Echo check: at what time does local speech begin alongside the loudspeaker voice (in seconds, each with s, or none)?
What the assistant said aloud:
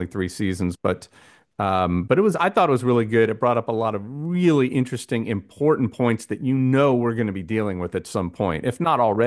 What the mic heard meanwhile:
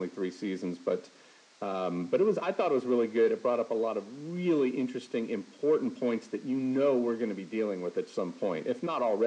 none